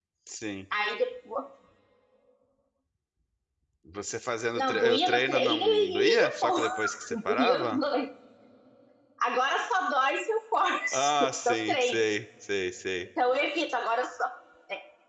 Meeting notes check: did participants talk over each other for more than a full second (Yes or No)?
Yes